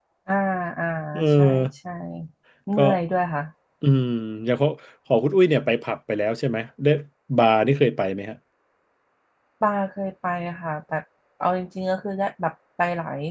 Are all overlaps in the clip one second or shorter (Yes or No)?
Yes